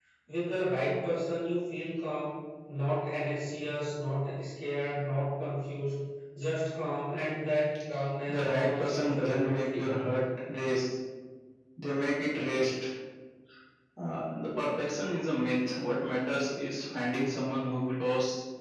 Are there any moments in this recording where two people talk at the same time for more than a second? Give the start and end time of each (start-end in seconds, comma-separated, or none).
8.3-10.2